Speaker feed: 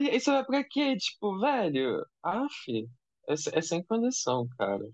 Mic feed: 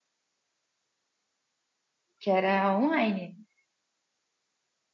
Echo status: none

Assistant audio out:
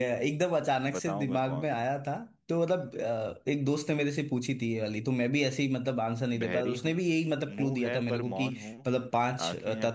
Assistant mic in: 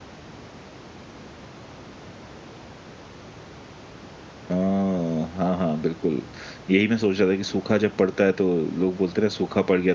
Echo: none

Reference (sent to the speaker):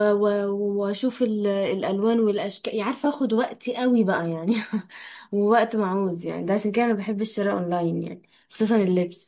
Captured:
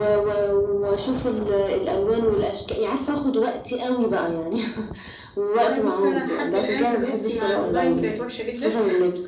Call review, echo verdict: present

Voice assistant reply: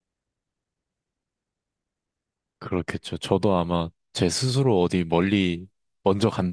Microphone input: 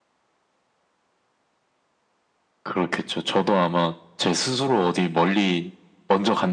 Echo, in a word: present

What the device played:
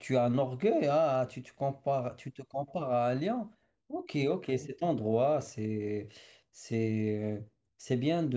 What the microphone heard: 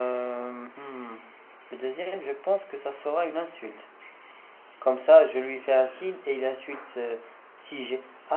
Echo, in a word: none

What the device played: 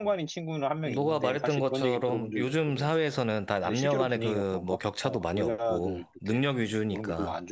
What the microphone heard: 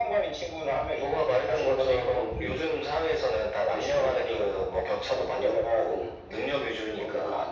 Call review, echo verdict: present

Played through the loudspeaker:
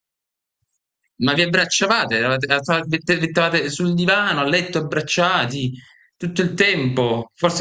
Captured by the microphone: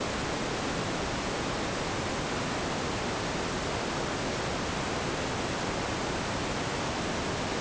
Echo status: none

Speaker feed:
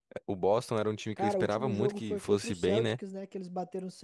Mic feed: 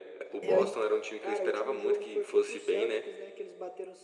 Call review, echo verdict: present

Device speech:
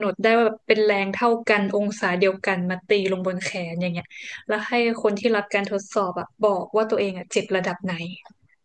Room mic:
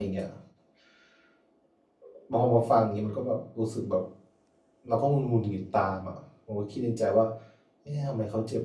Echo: none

